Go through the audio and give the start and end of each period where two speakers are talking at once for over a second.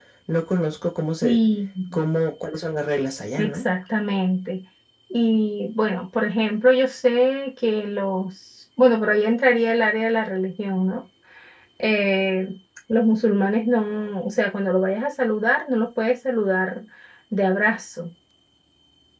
none

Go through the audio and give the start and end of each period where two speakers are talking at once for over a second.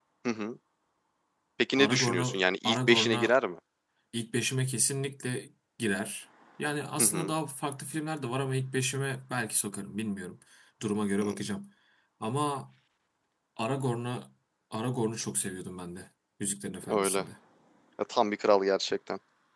1.8-3.3

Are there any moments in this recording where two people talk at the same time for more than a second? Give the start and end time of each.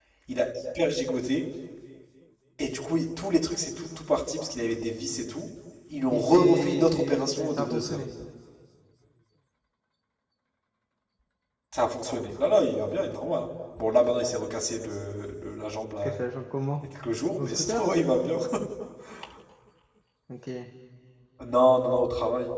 6.1-8.0

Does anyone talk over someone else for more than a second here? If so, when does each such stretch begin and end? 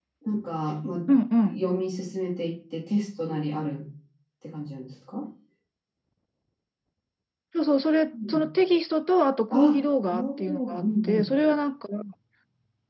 9.5-11.3

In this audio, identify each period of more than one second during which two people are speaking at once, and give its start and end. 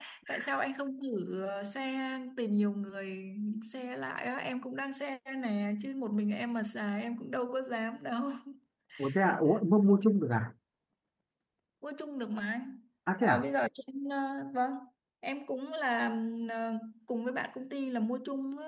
none

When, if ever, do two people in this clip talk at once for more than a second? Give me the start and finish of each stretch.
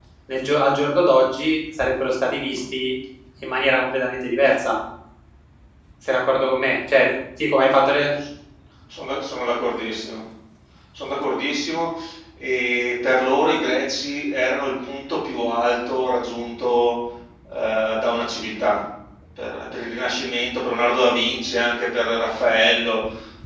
none

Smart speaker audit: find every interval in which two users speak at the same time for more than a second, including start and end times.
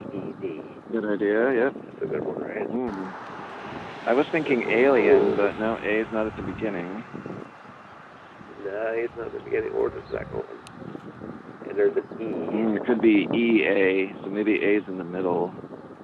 4.3-5.5

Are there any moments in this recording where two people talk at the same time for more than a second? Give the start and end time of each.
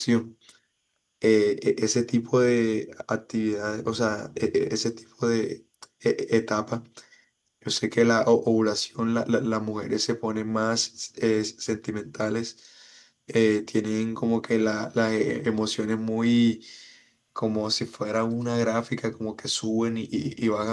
none

